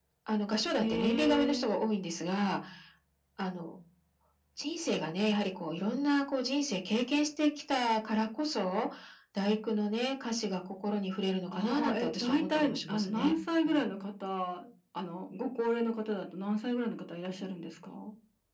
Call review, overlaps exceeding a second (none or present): present